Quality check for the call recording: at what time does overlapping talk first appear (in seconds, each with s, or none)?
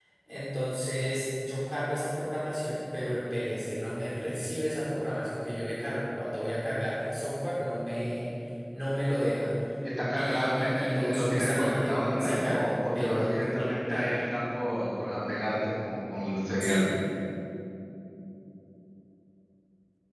10.2 s